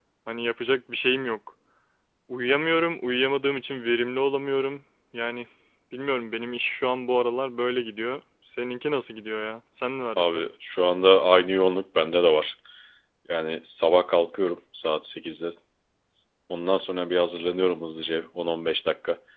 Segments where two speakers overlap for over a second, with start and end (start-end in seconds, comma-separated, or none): none